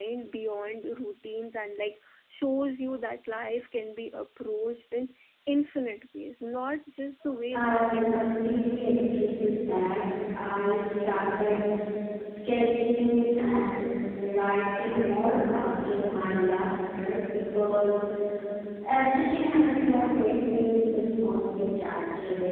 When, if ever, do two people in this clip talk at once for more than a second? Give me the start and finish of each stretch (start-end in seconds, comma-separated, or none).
7.5-8.8